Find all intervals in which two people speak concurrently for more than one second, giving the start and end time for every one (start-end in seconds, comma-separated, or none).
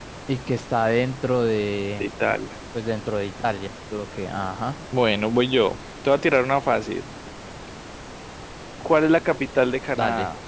none